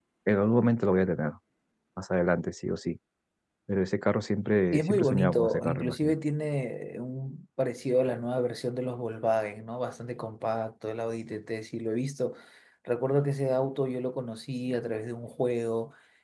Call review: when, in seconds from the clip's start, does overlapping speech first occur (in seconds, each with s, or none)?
4.7 s